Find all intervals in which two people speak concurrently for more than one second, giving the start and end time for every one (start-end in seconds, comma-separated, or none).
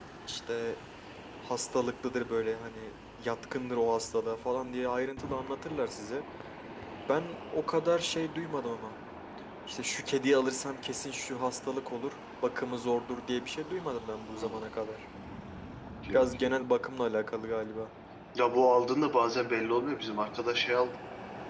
none